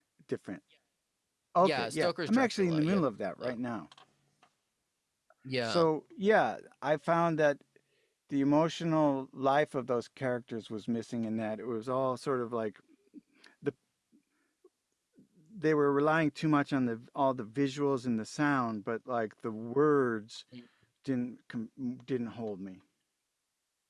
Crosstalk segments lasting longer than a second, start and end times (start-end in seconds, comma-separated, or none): 1.6-3.0